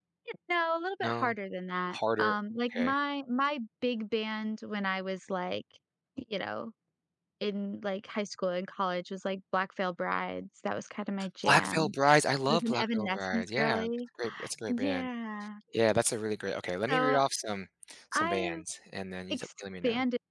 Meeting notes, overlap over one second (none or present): present